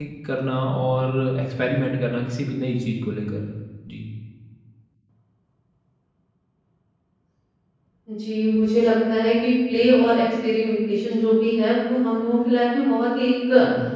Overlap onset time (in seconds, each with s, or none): none